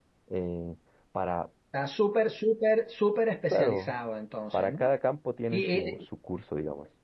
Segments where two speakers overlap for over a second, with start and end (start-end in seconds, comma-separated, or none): none